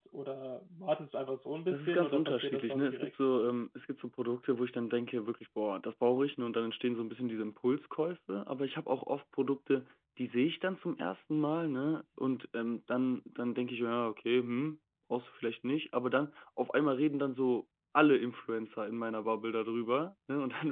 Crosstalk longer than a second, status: present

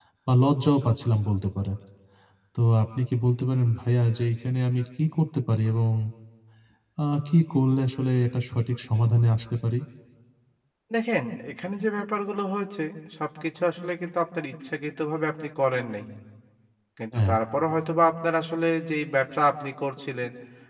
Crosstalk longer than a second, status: none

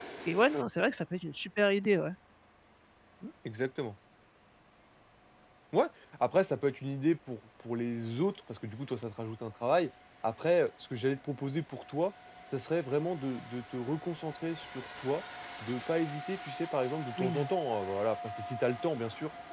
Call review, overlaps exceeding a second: none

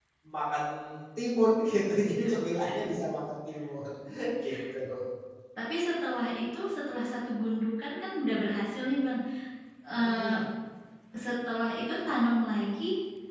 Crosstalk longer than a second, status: none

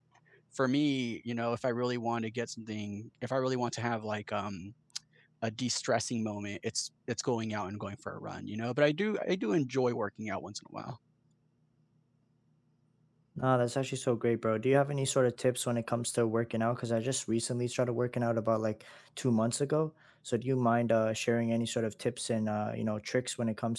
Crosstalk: none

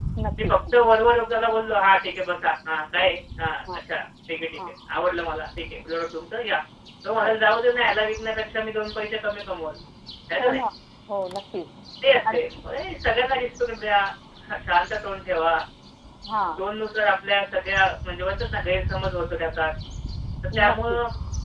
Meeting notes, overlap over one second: none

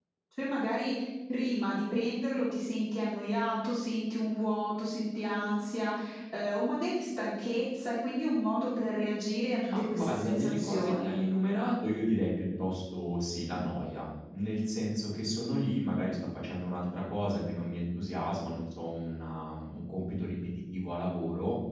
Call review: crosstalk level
present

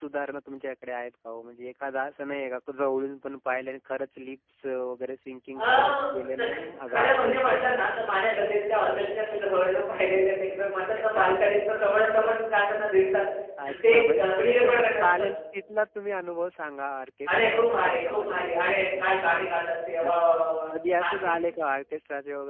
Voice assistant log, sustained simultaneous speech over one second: present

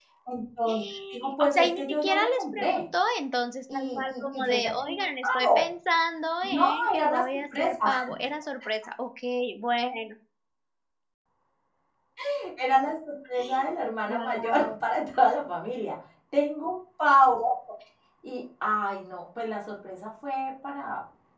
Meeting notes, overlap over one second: present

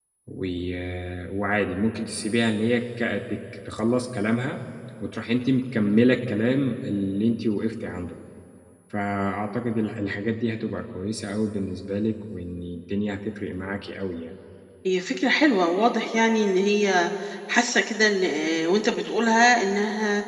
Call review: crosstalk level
none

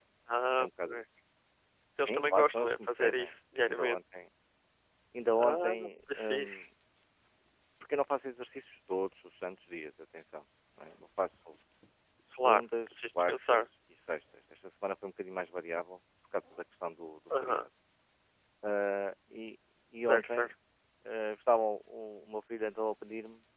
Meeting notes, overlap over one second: present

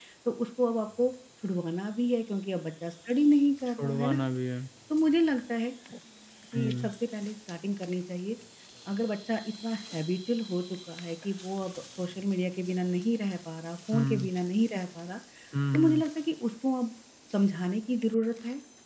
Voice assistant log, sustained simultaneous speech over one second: none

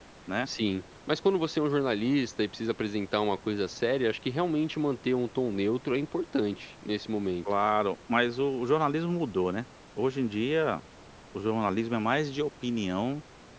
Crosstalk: none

